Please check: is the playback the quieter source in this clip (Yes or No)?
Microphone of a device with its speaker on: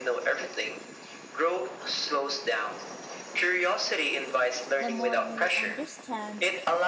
No